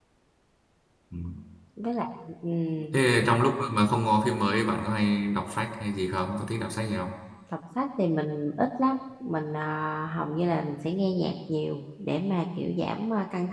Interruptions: none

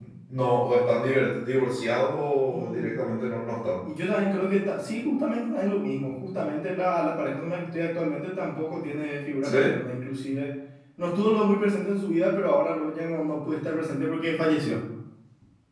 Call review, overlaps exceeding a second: none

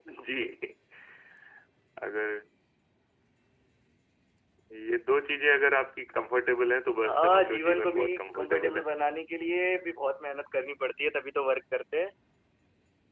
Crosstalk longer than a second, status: present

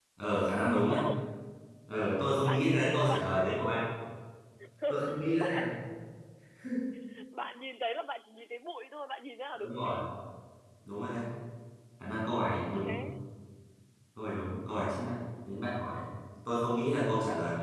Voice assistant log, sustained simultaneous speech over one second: present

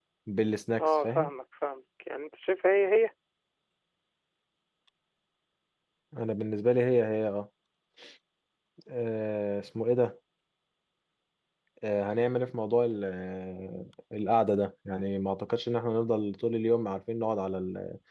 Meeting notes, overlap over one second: none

